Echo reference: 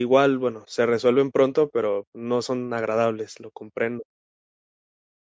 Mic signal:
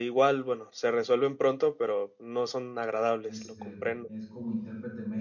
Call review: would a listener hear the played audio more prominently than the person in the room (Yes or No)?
Yes